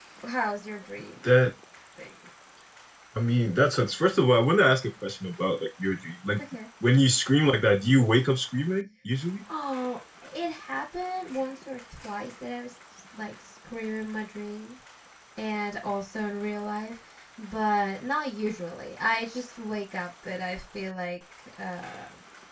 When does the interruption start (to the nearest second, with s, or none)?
none